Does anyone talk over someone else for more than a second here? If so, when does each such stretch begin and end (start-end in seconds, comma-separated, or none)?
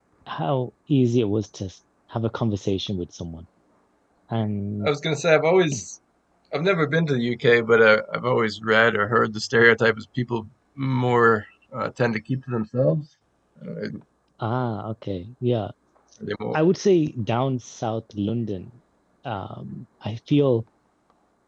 none